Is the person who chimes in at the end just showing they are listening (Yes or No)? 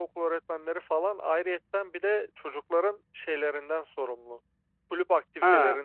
Yes